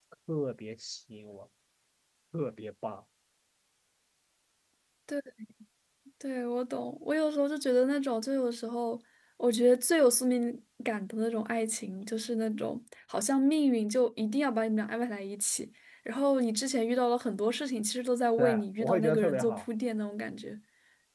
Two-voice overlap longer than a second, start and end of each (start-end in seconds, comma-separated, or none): 18.4-19.6